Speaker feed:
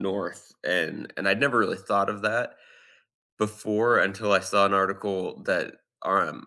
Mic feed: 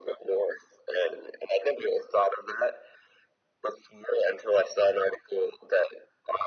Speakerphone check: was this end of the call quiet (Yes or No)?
Yes